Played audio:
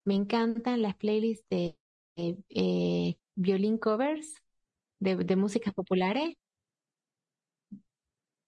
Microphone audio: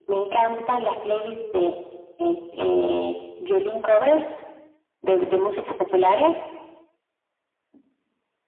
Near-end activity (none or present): none